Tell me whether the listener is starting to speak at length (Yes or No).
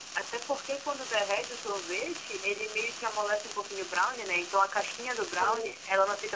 No